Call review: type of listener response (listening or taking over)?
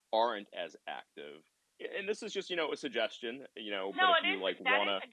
taking over